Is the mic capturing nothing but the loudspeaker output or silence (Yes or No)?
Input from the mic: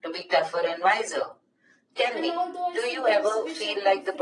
No